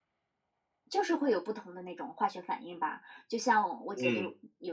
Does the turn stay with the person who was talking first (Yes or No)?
Yes